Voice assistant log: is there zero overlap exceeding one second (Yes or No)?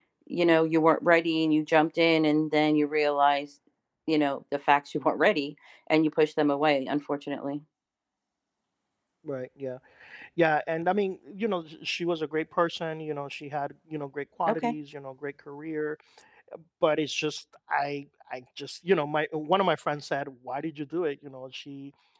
Yes